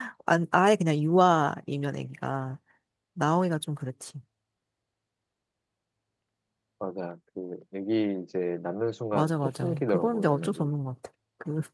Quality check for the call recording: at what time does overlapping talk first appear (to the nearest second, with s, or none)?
9 s